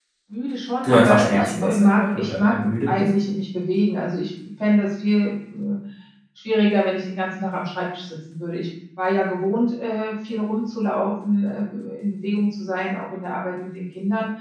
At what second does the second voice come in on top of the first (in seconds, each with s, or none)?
0.8 s